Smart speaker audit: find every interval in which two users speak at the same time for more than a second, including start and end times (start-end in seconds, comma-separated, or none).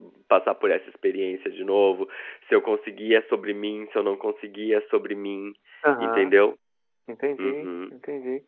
none